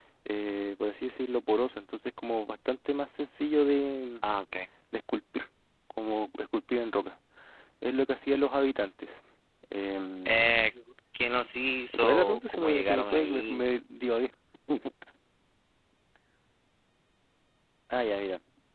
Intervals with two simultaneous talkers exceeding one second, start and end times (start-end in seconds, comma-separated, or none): 12.0-13.6